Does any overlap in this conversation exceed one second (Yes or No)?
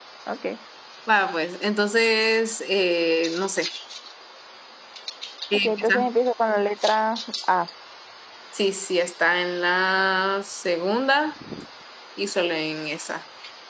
No